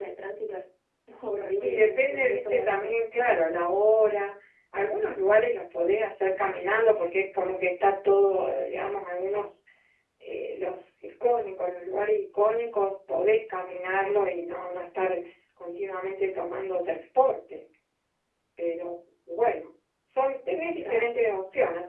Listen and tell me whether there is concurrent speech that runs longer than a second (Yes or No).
Yes